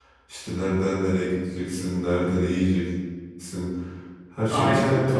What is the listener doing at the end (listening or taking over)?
listening